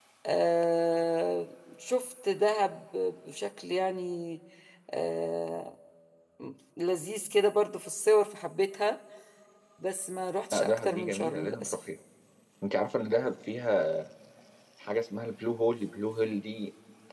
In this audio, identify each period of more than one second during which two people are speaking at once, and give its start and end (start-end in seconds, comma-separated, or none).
10.5-11.7